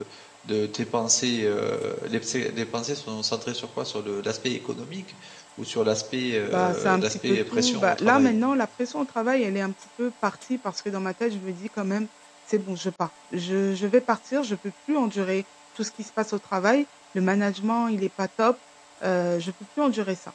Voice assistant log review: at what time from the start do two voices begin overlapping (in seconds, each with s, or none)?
6.5 s